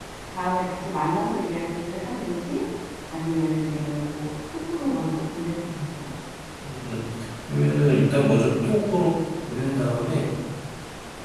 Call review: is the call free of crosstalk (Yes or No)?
Yes